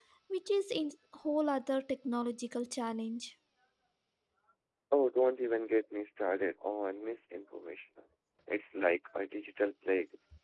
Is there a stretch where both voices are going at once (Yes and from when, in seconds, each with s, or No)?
No